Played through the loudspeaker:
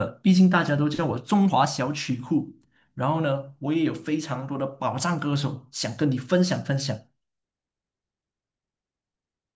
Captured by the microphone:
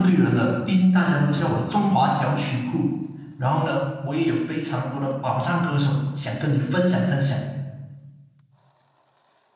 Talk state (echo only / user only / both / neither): echo only